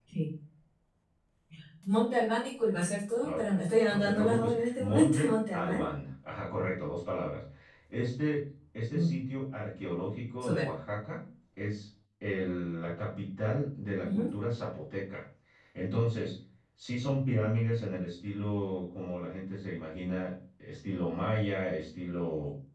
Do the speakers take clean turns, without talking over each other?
No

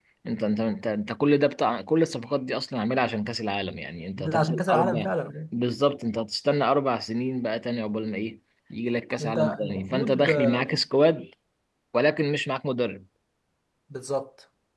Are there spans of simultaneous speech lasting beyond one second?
Yes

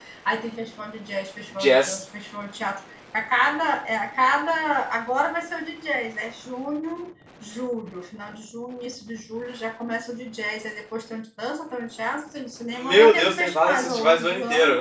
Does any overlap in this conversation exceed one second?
Yes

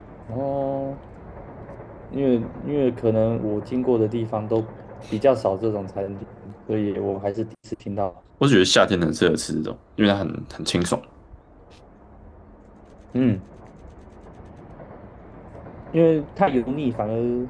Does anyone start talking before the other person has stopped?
No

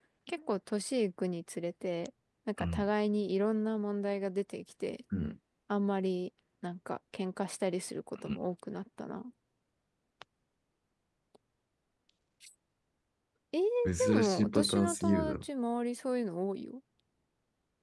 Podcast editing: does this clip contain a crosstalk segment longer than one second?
Yes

